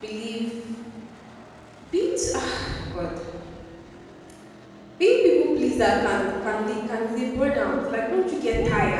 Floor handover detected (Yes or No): Yes